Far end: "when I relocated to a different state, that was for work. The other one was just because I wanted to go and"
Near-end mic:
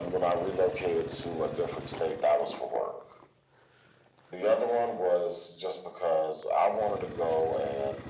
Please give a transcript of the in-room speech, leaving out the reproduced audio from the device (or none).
none